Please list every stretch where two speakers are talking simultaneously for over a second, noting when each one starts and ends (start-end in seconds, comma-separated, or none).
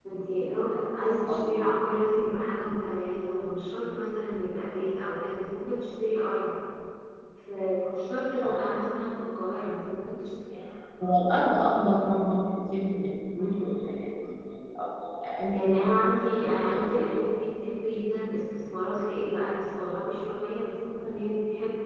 none